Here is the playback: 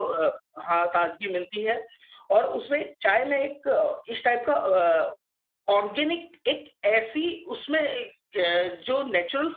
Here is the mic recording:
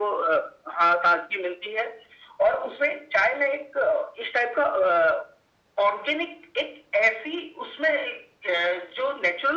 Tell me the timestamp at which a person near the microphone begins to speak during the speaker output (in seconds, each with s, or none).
none